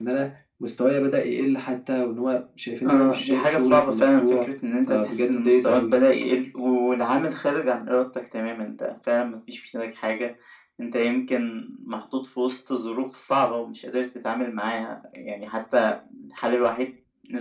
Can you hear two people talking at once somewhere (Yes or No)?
Yes